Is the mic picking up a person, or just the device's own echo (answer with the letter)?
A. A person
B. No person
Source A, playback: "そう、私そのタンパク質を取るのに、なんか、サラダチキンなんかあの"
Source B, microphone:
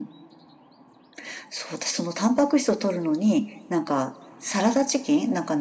B